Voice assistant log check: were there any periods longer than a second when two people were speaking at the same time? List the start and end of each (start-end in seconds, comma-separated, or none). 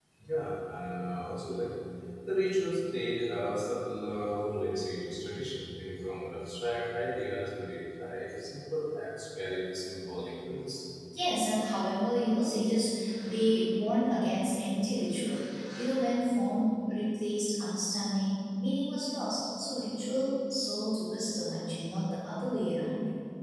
none